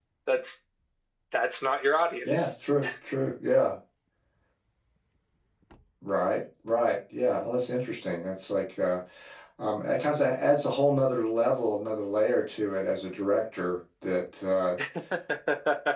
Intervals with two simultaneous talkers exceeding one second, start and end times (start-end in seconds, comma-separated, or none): none